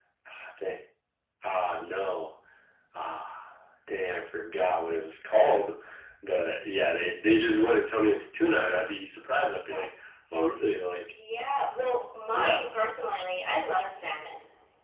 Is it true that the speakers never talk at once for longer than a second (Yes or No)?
Yes